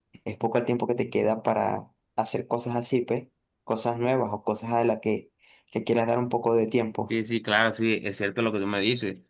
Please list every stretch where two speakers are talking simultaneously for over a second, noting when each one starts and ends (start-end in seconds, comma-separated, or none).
none